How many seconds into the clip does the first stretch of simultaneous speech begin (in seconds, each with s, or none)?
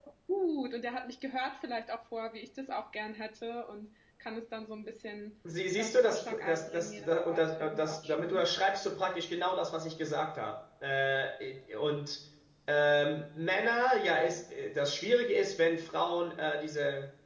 5.8 s